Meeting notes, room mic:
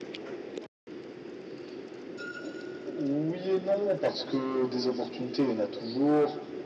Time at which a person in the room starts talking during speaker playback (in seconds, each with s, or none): none